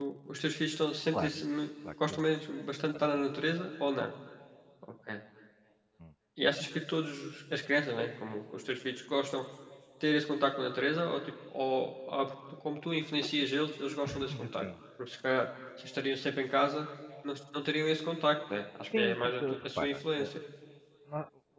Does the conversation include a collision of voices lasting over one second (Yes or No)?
Yes